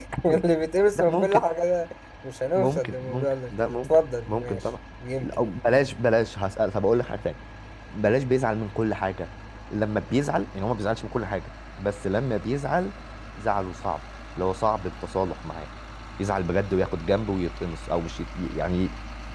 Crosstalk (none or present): present